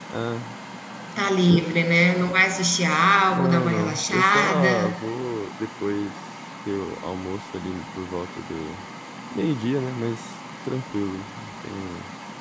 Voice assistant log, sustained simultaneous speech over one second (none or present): present